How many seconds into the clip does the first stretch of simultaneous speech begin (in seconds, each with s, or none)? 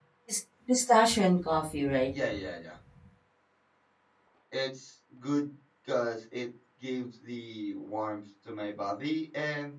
none